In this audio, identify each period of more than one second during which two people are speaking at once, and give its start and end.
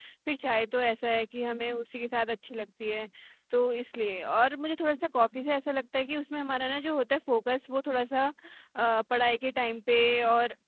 none

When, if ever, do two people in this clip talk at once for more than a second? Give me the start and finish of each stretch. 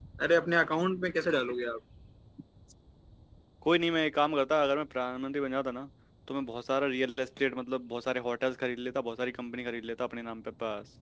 none

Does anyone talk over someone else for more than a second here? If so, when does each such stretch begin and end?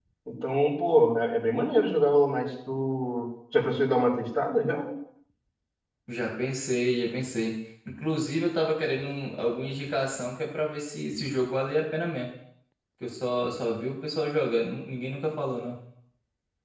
none

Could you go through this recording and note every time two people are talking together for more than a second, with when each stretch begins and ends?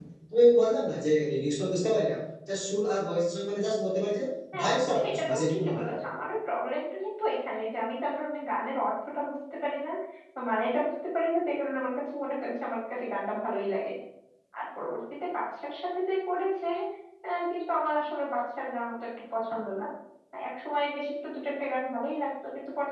4.6-6.0

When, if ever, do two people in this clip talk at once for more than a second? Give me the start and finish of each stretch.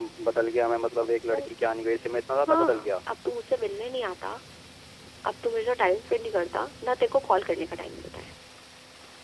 none

